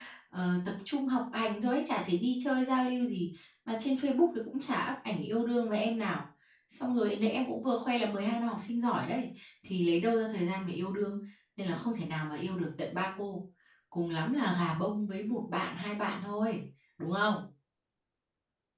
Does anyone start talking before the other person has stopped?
No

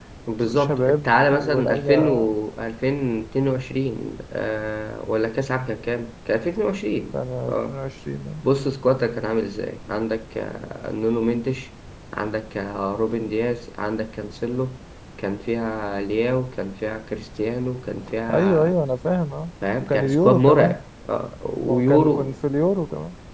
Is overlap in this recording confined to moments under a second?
No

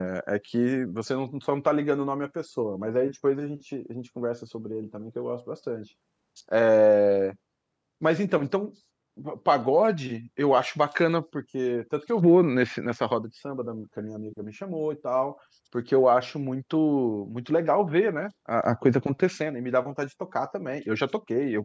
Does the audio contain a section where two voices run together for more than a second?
No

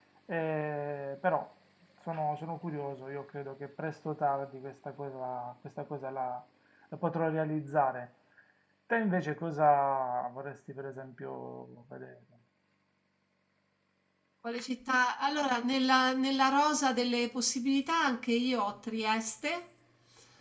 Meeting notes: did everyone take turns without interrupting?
Yes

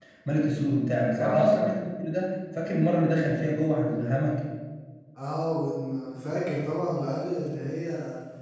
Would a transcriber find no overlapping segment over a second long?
Yes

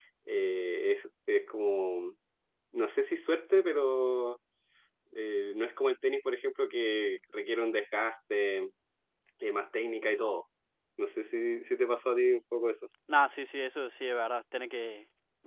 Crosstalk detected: No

